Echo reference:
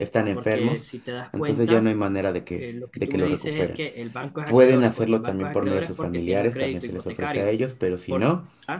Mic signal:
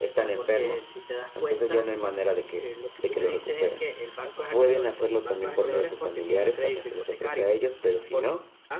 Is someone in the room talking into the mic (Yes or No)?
No